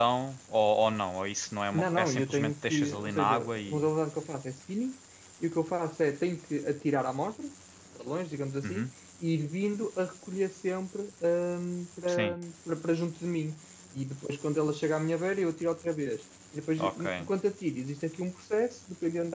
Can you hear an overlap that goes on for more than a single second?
Yes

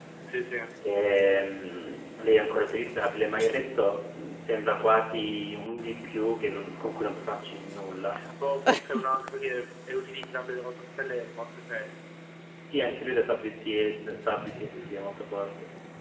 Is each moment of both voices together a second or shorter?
Yes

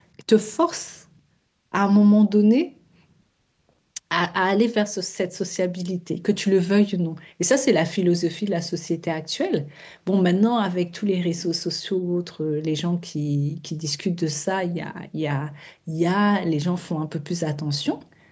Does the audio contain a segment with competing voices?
No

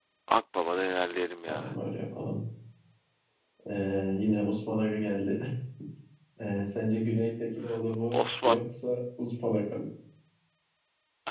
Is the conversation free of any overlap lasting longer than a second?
Yes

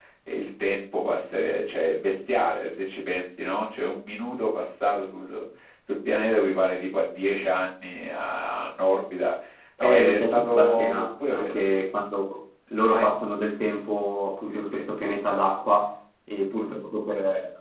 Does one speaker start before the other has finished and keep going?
Yes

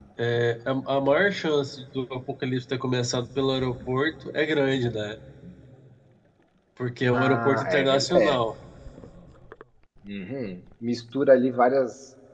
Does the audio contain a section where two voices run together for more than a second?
Yes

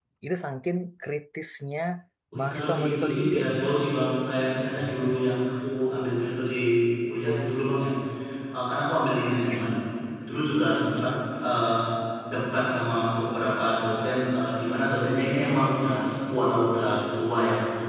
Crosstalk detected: Yes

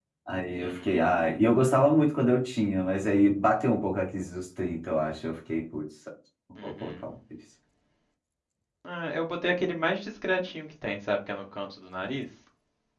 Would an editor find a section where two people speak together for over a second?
No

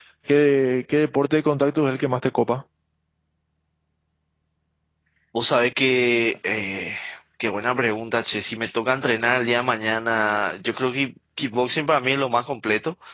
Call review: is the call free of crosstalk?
Yes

